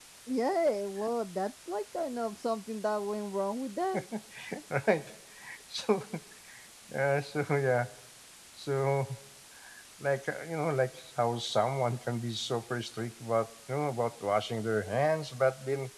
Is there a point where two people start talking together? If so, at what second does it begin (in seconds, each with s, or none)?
none